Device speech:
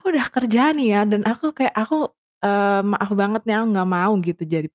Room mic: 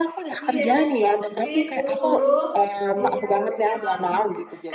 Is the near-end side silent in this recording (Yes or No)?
No